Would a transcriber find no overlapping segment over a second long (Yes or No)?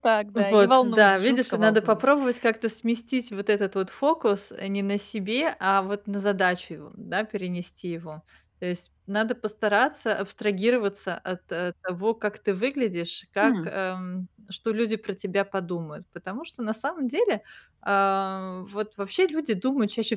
No